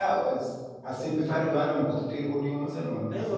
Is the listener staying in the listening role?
No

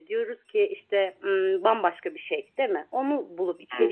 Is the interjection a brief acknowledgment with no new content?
Yes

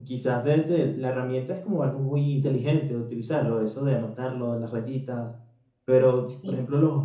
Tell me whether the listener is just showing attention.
Yes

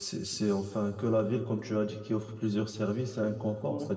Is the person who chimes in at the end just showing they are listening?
Yes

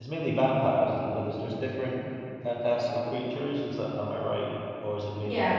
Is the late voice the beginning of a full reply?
Yes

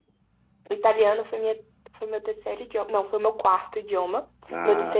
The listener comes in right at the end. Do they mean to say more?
No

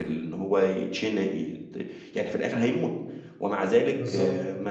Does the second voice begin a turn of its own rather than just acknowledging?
No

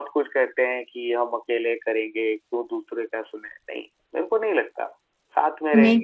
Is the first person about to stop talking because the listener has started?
Yes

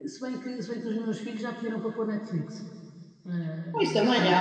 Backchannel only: No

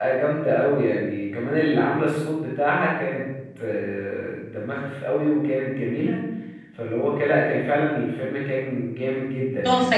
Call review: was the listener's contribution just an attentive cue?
No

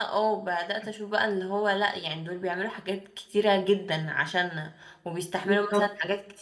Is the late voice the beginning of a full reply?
No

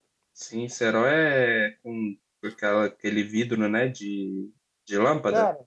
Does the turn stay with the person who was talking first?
No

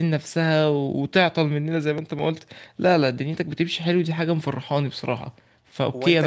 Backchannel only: No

